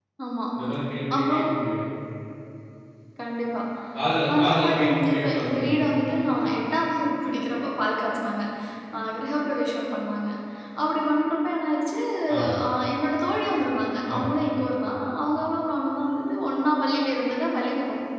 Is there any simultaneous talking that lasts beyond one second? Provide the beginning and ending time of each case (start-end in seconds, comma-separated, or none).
4.3-5.8